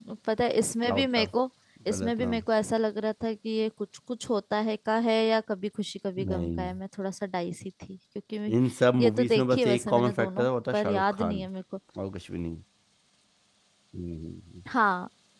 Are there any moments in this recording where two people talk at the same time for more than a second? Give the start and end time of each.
9.0-11.5

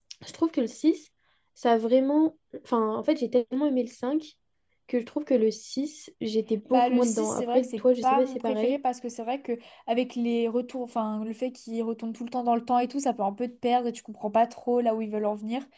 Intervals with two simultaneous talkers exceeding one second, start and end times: 6.7-8.8

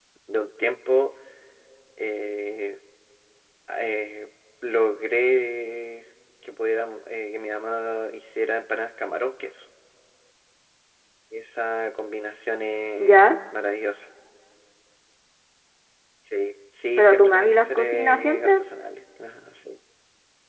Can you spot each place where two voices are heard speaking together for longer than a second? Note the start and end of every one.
17.0-18.5

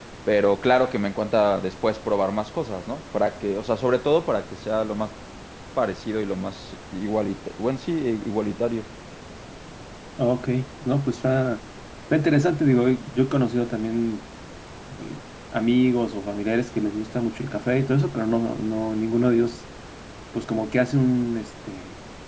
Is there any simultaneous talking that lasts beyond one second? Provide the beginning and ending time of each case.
none

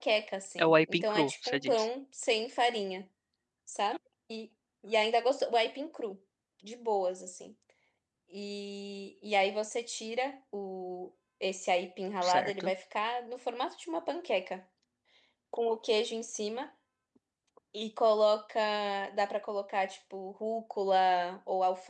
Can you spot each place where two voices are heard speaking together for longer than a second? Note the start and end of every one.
0.6-1.9

